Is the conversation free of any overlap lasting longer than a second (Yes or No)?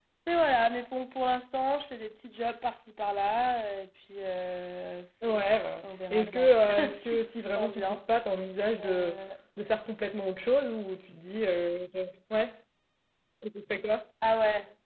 No